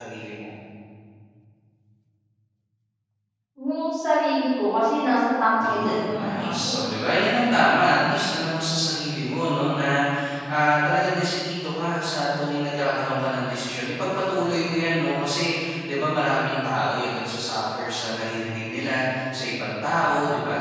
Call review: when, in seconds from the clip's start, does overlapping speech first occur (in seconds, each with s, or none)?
5.6 s